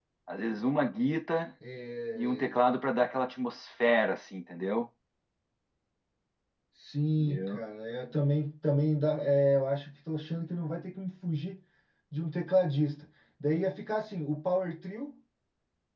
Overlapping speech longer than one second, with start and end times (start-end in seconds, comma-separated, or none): none